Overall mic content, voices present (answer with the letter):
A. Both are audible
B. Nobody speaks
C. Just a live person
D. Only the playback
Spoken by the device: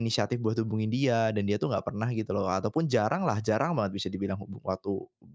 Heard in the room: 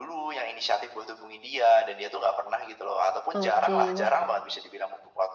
A